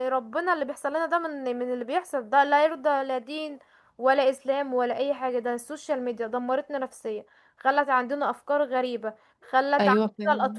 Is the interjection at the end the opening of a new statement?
No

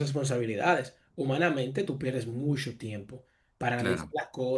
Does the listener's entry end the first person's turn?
No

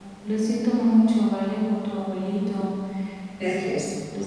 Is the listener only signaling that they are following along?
Yes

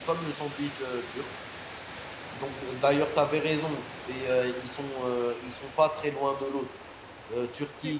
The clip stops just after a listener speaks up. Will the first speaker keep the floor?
Yes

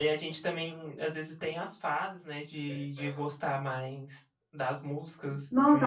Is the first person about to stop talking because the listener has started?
Yes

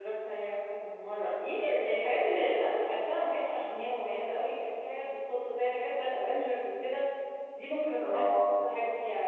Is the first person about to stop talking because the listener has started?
No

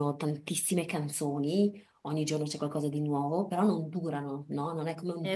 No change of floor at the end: Yes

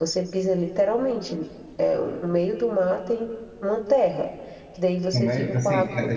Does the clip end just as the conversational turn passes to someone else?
Yes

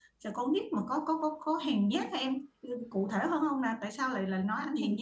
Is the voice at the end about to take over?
Yes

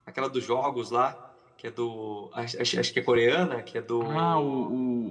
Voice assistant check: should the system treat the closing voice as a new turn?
Yes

